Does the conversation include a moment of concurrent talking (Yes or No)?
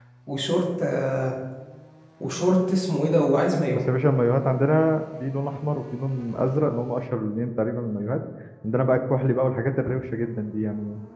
No